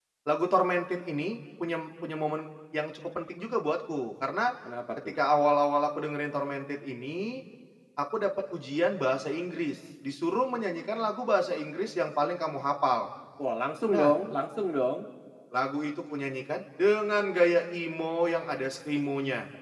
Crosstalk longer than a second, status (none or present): none